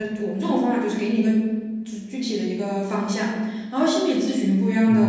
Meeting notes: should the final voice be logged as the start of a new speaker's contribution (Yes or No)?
No